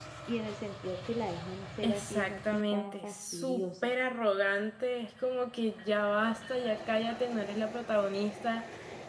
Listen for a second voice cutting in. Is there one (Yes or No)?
Yes